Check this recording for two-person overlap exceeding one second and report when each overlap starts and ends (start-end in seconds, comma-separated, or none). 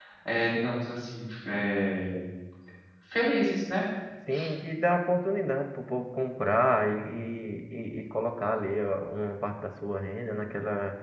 none